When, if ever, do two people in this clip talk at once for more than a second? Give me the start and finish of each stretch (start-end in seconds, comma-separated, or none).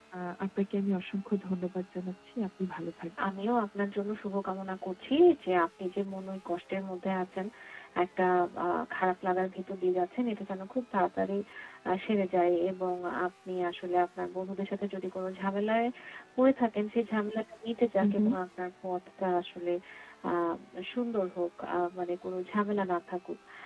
none